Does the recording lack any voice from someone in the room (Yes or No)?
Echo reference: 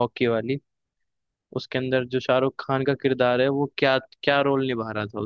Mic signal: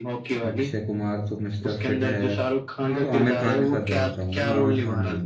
No